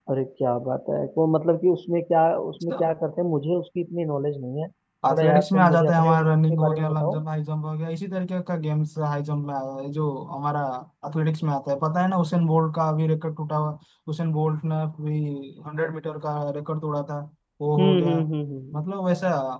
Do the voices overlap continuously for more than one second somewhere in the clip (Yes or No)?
Yes